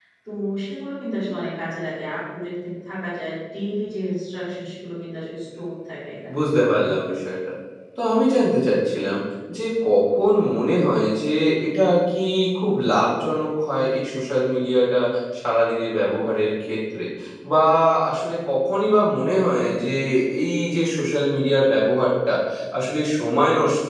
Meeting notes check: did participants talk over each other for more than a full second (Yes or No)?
No